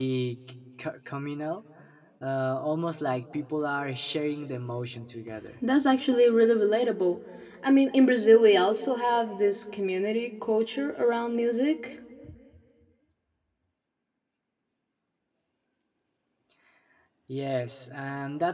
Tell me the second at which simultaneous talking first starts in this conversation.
none

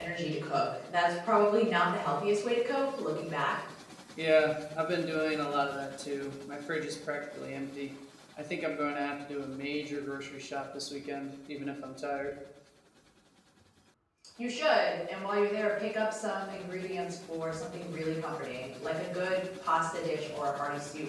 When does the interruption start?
none

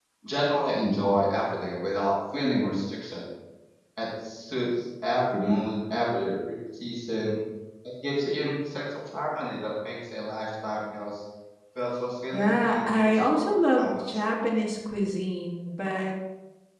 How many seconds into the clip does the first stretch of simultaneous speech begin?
12.3 s

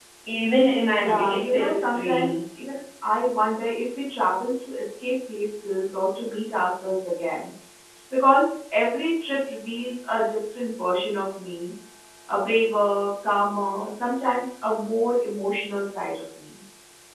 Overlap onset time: 1.0 s

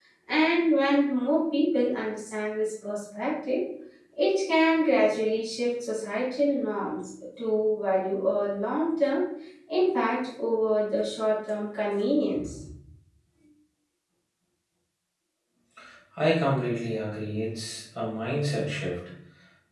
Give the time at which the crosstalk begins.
none

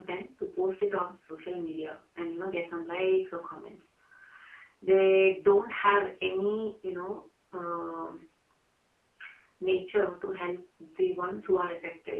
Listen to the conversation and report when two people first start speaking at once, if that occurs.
none

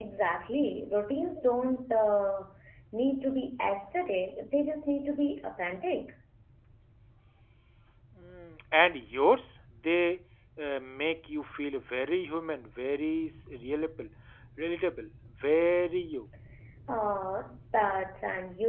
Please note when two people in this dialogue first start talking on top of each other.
none

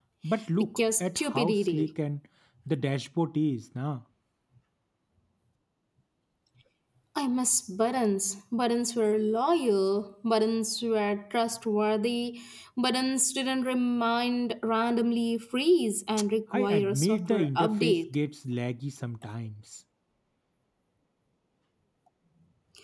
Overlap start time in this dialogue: 0.6 s

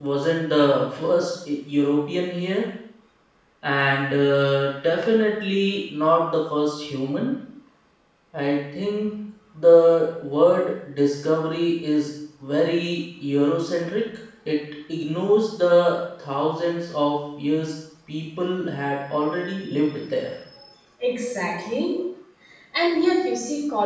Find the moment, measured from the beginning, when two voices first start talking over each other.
none

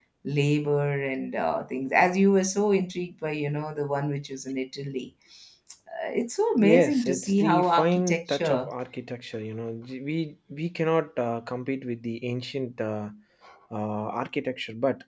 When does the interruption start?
6.6 s

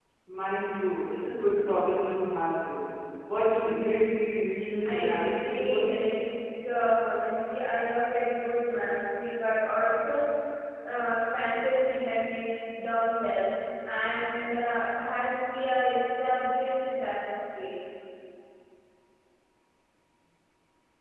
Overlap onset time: 4.8 s

